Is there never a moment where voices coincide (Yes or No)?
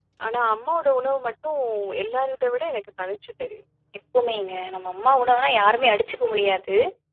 Yes